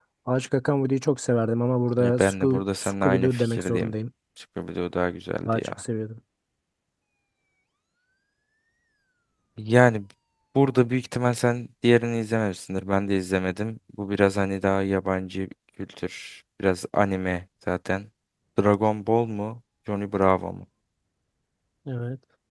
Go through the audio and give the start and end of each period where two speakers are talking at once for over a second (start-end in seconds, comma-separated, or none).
2.0-3.9